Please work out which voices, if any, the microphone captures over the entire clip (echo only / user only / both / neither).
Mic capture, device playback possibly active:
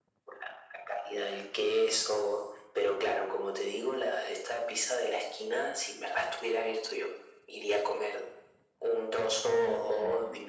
both